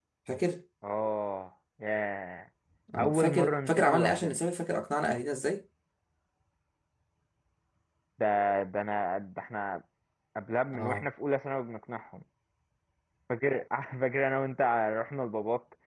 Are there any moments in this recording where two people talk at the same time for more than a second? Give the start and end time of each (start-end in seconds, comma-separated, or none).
3.0-4.4